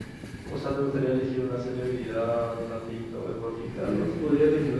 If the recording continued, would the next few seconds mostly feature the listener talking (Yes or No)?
Yes